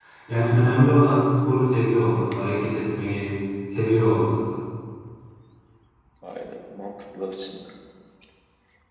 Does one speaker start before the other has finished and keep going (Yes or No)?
No